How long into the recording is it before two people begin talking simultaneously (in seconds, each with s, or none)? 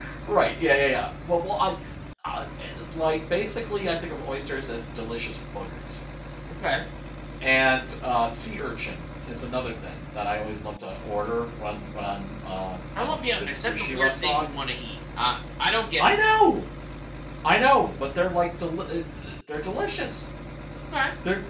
13.0 s